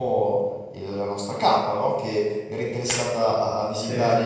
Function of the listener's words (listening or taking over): listening